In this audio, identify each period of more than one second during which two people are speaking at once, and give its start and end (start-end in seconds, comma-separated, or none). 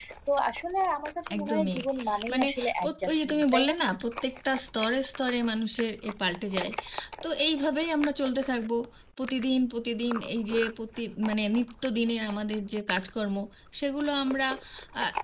2.3-3.8